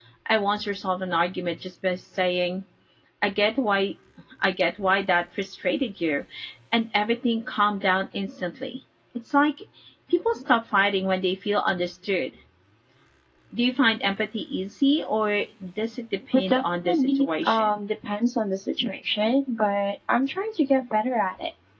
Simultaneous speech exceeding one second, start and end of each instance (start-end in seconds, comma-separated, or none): 16.3-17.8